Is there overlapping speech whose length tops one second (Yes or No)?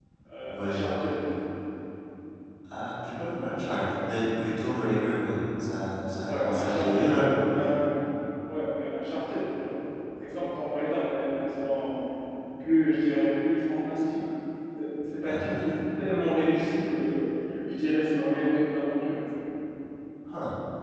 Yes